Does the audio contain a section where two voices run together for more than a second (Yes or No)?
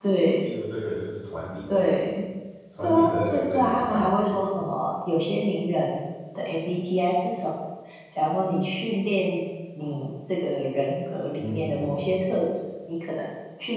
Yes